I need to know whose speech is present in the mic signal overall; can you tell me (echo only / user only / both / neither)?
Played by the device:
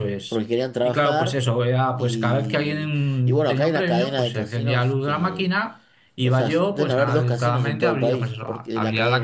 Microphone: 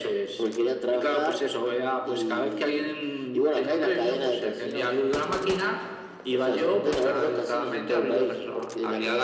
echo only